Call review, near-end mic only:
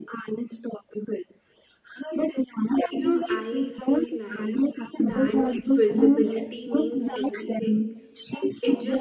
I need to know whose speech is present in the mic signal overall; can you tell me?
both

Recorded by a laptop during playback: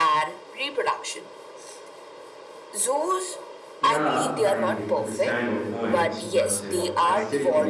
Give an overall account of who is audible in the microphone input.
both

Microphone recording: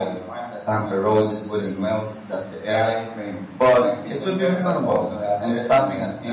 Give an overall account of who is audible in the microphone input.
both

